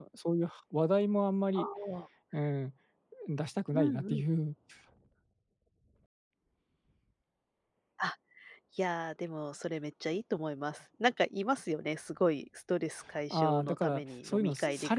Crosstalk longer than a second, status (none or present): present